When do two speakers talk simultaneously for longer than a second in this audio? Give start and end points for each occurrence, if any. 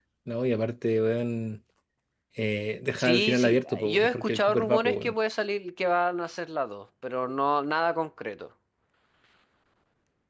3.0-5.1

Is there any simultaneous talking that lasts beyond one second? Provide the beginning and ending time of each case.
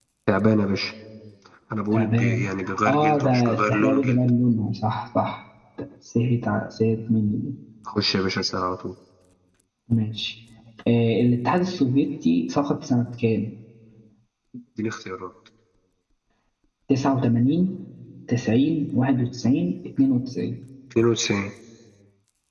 2.9-4.2

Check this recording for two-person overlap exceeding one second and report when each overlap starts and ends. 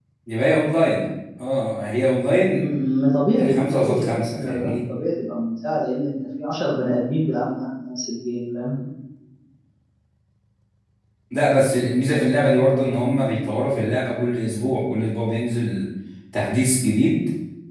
3.3-4.7

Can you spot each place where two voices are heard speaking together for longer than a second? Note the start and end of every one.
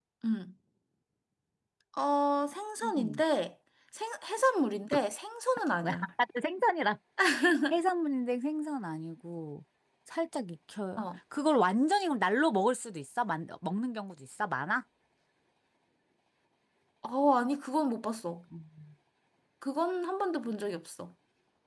none

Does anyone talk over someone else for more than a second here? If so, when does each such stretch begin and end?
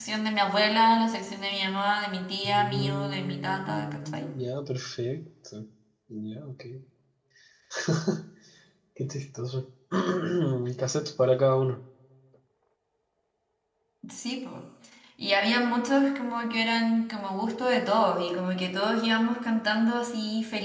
2.4-4.3

